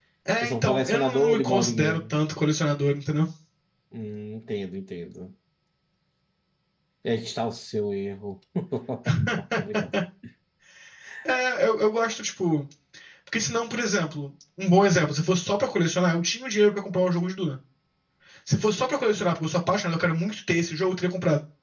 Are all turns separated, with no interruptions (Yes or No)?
No